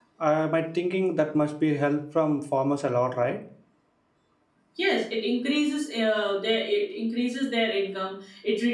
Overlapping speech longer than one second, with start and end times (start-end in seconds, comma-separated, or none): none